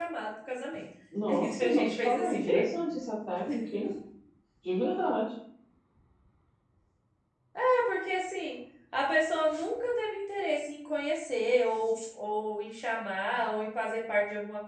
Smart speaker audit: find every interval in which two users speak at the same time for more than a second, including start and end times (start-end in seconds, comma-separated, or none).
1.3-2.7